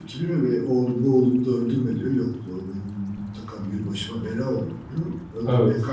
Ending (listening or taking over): listening